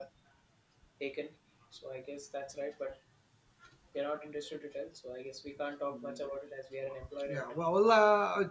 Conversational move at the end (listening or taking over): taking over